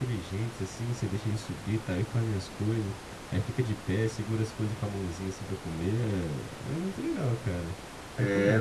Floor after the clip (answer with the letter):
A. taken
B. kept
A